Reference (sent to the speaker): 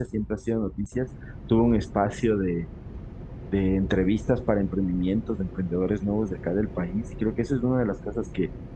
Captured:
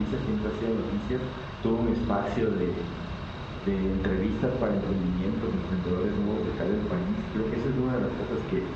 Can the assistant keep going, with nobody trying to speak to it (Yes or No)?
Yes